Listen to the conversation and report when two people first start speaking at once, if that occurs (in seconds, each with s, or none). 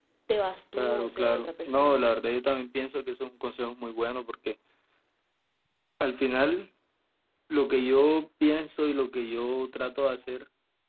0.8 s